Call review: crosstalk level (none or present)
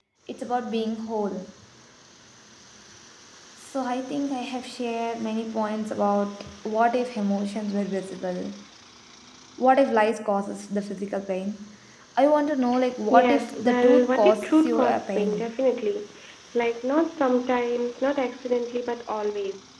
present